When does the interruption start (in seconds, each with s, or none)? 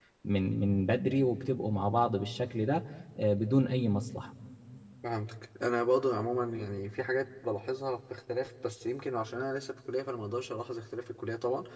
none